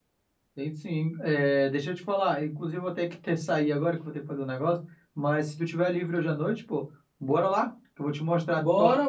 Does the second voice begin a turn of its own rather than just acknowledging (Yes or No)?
Yes